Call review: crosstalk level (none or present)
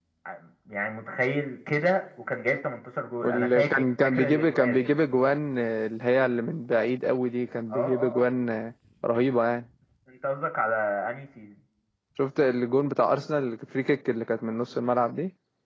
present